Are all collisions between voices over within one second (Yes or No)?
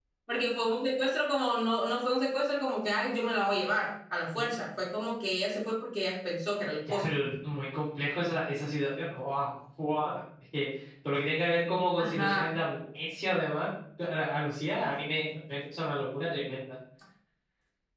Yes